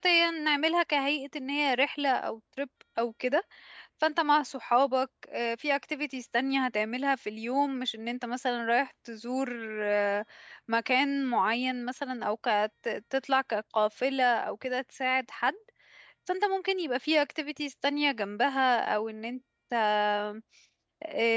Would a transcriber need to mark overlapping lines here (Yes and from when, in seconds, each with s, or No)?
No